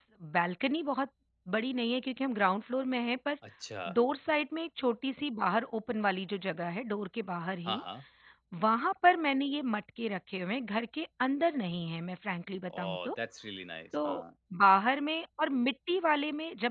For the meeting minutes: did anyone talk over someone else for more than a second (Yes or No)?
No